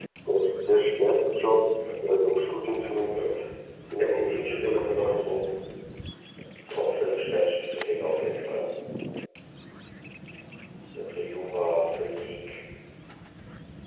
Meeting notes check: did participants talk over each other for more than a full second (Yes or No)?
Yes